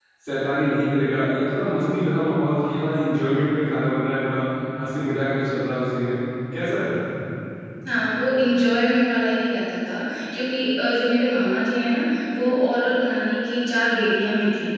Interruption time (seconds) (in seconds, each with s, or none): none